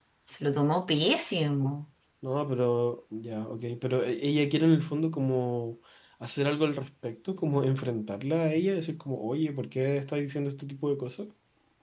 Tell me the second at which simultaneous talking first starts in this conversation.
none

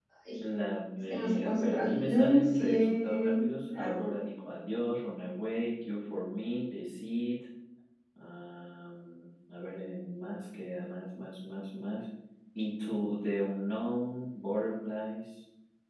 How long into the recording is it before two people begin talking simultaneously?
1.1 s

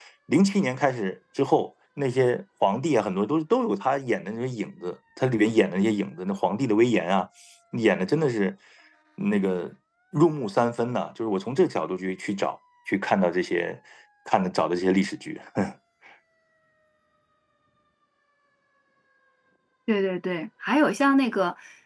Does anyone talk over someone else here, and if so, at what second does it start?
none

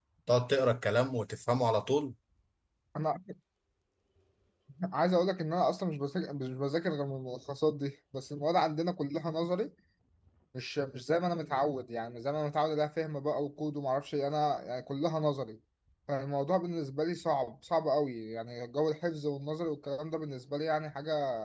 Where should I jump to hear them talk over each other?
none

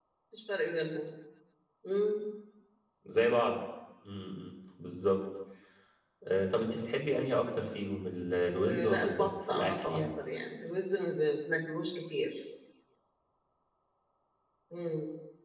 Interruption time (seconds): 8.7 s

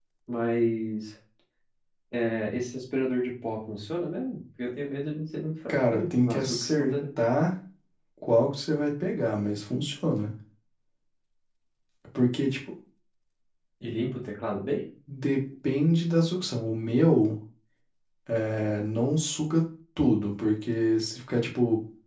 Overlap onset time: 5.7 s

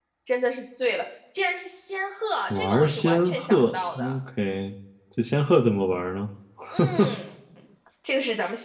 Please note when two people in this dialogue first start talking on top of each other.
2.5 s

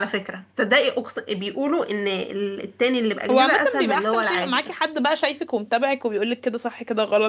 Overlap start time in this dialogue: 3.3 s

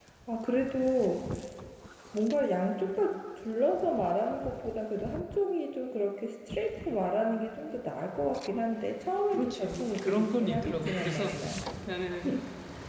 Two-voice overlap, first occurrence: 9.3 s

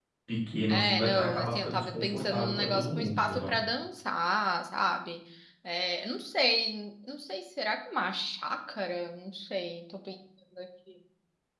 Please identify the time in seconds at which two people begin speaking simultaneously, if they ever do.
0.7 s

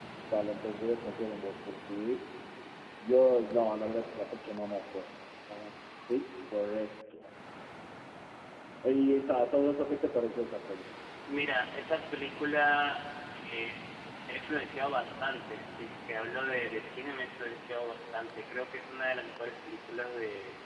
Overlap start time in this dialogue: none

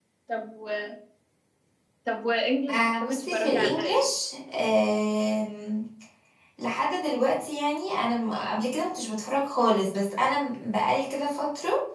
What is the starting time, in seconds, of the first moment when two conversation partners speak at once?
2.7 s

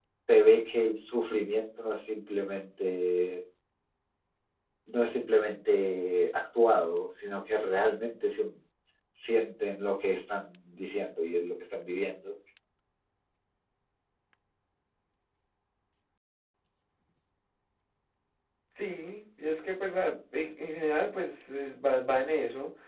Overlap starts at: none

